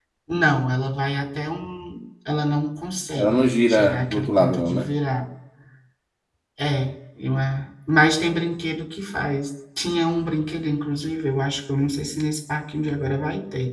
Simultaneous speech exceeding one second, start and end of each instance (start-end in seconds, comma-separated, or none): 3.1-4.9